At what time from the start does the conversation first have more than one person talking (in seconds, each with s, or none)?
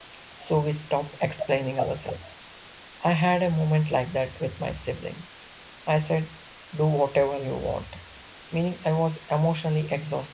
none